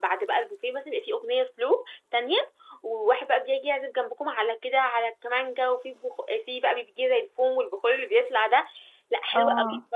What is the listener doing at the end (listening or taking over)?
listening